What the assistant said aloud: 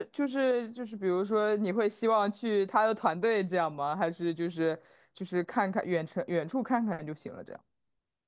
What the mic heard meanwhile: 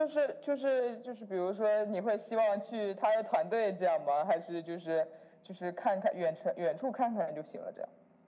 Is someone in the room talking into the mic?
No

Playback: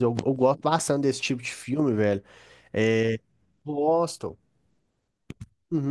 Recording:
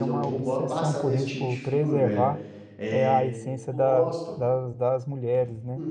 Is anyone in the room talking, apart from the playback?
Yes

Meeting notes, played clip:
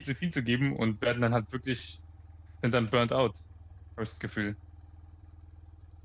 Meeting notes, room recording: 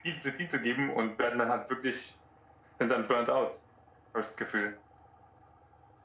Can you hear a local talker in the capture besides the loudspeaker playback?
No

